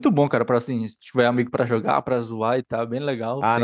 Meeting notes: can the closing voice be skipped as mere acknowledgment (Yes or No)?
No